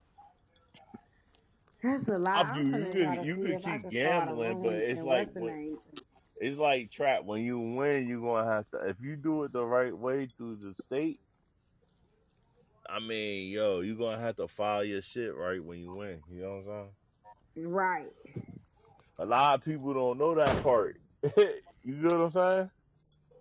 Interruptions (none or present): present